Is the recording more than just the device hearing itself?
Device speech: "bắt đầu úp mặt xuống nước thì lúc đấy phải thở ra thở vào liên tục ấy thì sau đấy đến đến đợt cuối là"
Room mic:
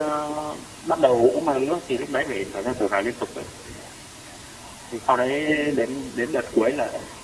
No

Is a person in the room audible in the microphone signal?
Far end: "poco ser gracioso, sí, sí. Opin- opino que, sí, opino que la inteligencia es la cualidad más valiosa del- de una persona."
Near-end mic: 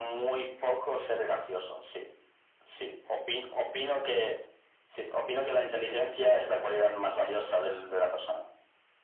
No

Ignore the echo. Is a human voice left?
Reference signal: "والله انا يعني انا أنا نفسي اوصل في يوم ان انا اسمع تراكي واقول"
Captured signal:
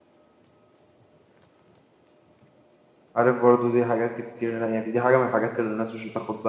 Yes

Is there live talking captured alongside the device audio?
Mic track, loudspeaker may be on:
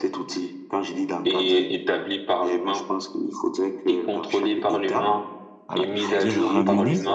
Yes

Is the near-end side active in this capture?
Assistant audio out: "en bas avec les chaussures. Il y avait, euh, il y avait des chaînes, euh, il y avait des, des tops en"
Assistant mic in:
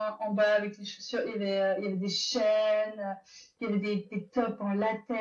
No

